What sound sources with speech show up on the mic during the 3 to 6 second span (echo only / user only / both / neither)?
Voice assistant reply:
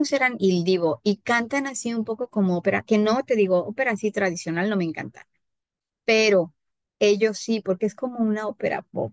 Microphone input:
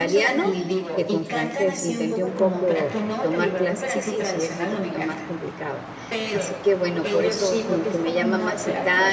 both